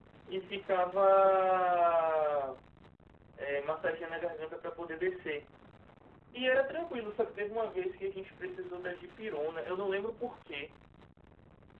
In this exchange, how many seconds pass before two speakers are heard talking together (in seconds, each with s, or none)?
none